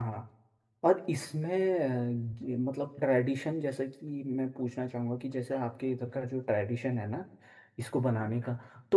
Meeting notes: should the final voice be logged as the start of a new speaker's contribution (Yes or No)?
No